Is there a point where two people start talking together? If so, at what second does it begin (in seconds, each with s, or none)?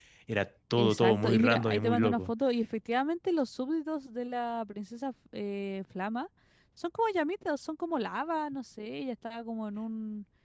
0.8 s